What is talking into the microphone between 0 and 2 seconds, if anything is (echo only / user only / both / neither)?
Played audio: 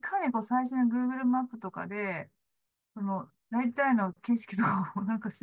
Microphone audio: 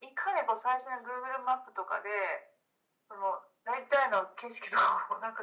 echo only